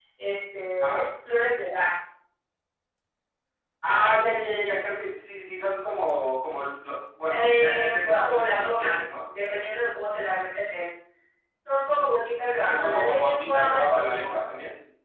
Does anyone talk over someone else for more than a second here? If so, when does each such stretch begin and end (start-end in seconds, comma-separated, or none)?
7.3-9.1, 12.7-14.3